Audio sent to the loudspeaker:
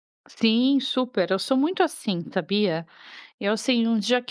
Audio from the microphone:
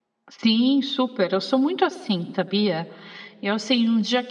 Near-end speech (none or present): none